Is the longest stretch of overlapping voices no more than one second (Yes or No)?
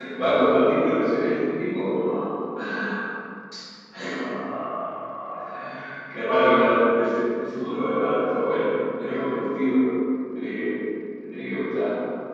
Yes